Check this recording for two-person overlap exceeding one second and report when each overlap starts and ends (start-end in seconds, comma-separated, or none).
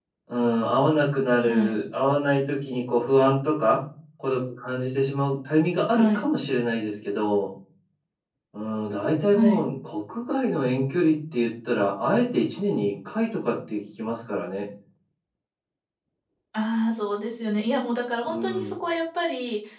none